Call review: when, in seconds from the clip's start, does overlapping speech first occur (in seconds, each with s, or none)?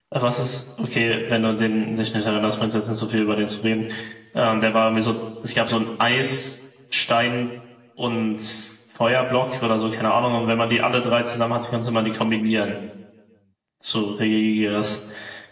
none